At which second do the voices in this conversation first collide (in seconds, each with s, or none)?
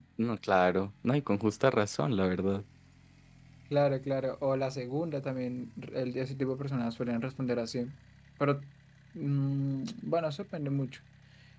none